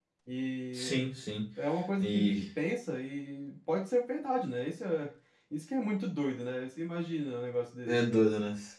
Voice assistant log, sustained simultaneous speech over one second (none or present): none